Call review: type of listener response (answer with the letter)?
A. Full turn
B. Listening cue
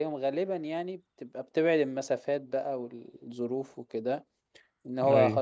B